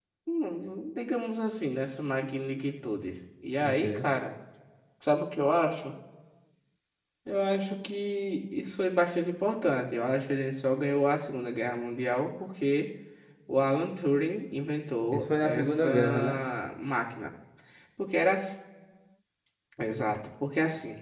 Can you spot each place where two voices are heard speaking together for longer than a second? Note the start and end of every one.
15.1-16.4

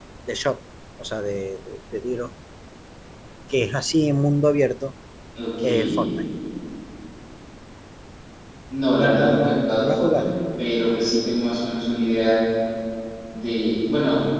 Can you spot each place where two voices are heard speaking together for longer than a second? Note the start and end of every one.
9.0-10.3

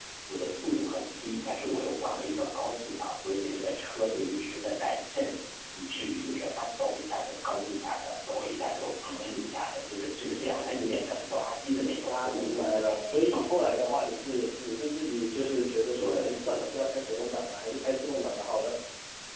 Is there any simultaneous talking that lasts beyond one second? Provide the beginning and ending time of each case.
12.1-13.4

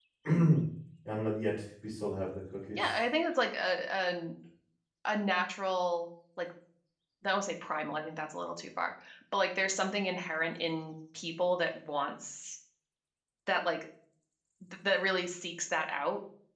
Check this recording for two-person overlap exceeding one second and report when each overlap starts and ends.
none

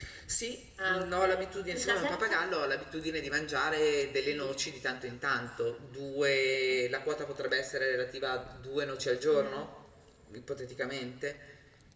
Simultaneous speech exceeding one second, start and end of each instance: 0.8-2.4

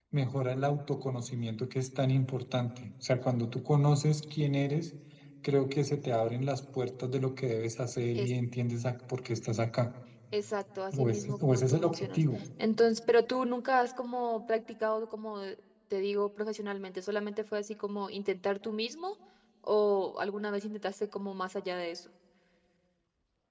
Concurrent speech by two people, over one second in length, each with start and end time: 11.0-12.2

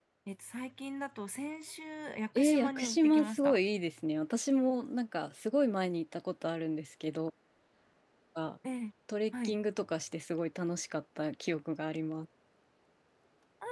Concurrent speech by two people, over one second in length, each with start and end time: 2.4-3.6

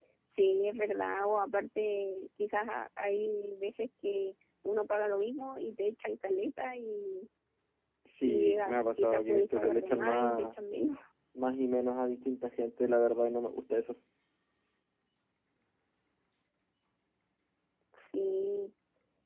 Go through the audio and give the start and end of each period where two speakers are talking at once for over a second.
8.2-10.6

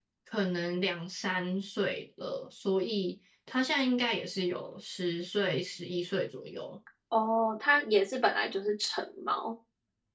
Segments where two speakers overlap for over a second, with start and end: none

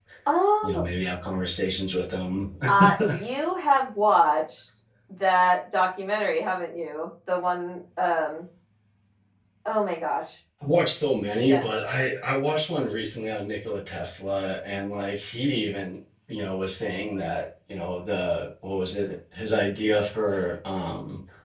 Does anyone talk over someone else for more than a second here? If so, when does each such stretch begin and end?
none

